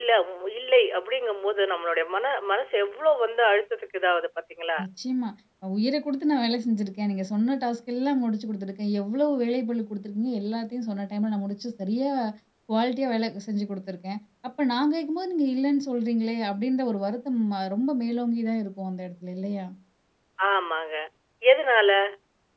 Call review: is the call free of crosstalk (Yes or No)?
Yes